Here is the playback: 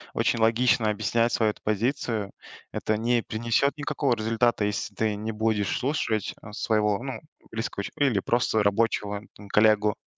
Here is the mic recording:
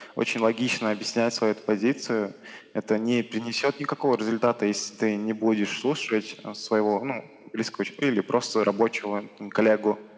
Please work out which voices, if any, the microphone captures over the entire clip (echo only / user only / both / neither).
echo only